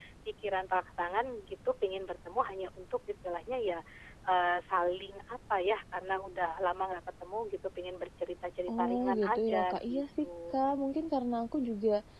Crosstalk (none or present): present